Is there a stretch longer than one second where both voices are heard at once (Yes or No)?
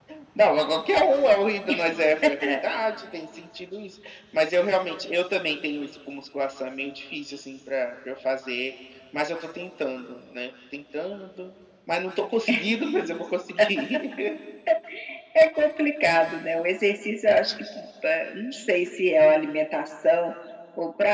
No